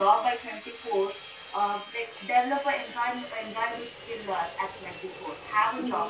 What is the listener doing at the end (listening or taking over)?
listening